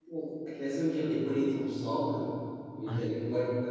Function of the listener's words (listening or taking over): listening